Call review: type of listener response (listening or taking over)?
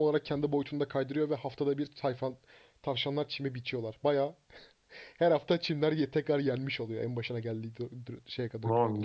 taking over